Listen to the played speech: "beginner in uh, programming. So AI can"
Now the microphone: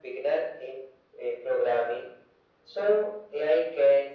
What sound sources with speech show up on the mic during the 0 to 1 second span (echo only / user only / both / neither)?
echo only